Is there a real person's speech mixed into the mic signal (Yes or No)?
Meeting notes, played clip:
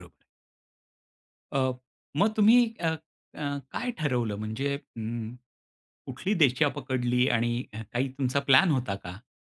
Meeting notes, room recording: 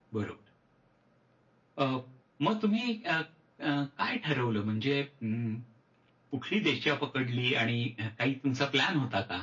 No